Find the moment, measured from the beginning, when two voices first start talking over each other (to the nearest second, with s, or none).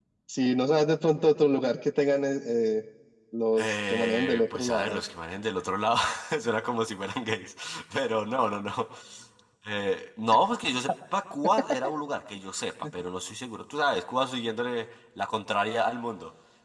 4 s